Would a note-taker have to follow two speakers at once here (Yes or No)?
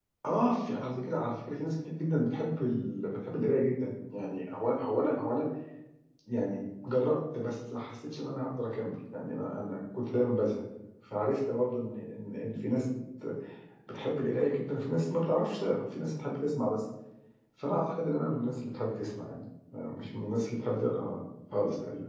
No